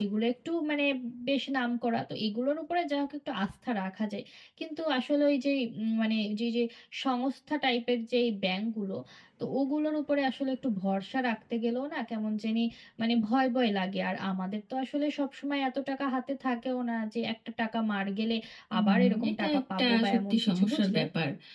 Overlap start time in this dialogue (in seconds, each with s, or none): 18.8 s